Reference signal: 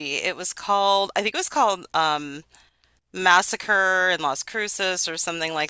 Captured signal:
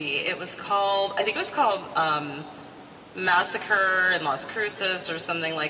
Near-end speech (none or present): none